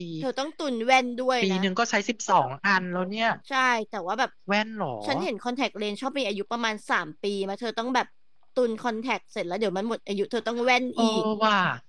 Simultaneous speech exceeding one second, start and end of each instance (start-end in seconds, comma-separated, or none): none